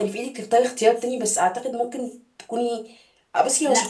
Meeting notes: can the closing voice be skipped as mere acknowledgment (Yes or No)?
No